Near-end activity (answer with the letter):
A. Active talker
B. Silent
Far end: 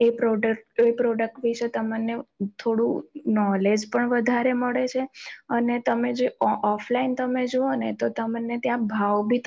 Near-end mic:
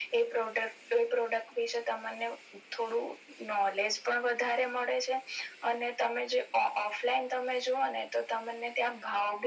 B